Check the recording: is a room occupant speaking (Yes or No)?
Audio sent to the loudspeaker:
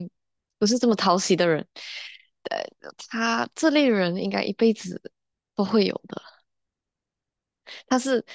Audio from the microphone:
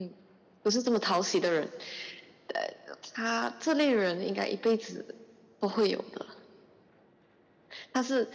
No